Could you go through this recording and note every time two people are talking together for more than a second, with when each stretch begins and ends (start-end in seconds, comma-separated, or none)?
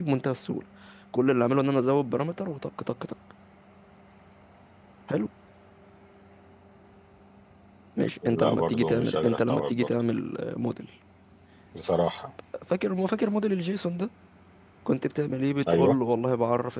8.4-9.9